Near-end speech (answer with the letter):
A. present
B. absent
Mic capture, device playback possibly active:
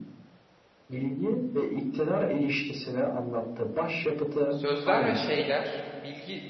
A